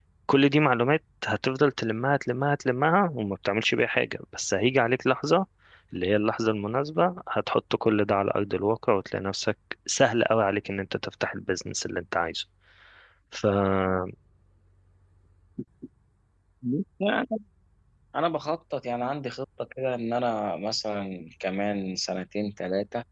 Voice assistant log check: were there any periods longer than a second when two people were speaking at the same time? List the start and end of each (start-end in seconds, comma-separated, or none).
none